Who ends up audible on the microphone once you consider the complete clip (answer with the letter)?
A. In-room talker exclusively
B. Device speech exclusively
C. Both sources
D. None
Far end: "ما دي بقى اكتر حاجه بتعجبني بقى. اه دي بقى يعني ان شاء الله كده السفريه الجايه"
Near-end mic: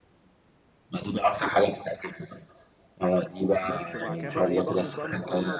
C